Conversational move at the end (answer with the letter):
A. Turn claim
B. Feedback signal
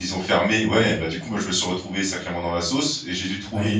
B